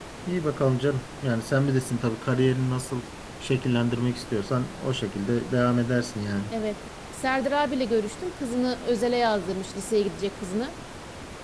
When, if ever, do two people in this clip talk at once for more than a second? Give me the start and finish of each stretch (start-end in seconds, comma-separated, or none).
none